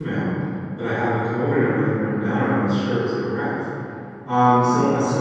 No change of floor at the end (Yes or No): Yes